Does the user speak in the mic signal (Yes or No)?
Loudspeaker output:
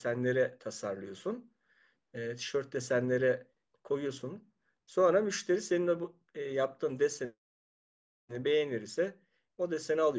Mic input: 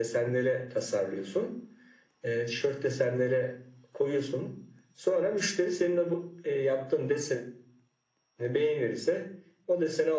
No